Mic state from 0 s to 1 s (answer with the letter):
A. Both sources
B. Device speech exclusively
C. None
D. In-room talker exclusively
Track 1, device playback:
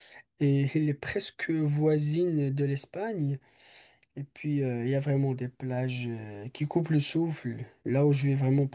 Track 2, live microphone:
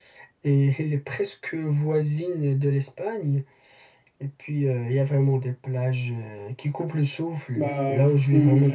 B